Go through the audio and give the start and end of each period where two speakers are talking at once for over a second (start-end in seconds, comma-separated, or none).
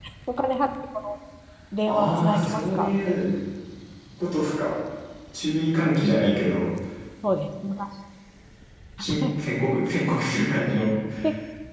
1.9-3.2